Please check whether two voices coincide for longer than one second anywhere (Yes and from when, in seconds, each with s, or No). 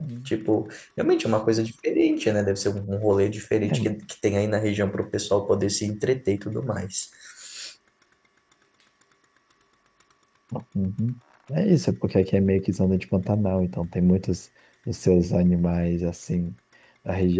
No